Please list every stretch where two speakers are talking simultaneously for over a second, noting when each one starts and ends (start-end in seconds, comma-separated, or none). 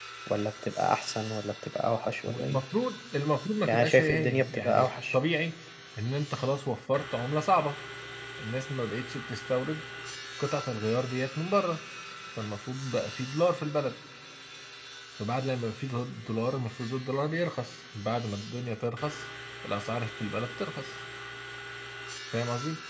3.6-5.2